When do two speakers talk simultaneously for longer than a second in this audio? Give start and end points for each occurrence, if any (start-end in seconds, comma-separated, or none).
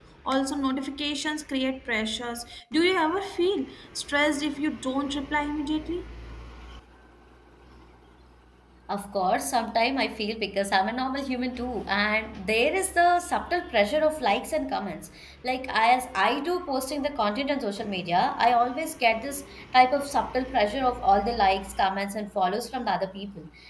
none